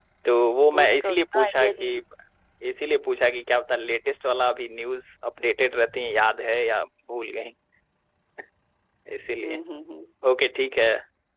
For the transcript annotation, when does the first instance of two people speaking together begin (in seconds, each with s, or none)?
0.7 s